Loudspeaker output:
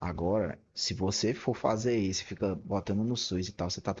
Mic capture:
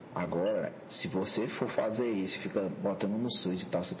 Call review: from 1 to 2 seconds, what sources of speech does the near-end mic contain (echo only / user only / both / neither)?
echo only